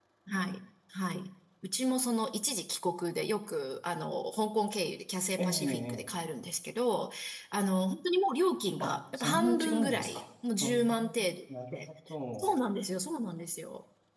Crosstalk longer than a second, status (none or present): present